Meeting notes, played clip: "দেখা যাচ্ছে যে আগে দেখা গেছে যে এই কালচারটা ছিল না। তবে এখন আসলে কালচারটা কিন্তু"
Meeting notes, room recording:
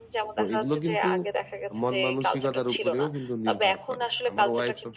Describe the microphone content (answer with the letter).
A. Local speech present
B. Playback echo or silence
A